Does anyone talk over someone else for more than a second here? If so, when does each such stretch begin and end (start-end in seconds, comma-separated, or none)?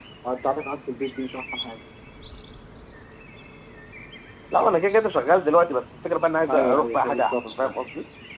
6.5-7.8